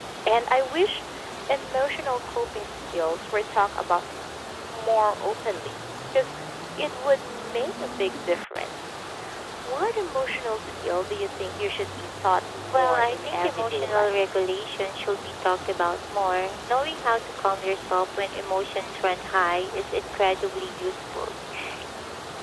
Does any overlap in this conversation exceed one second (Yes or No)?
Yes